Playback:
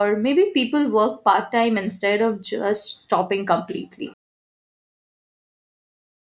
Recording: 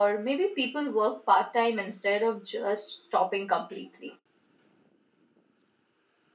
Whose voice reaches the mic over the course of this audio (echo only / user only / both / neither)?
echo only